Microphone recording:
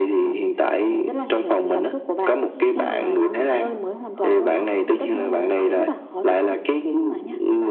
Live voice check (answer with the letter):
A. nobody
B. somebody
B